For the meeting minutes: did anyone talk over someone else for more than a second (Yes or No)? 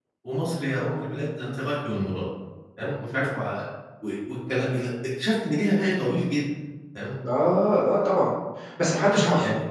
No